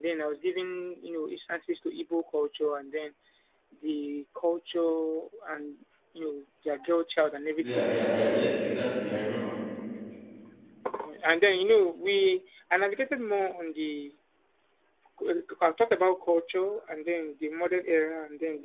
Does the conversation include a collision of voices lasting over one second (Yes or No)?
No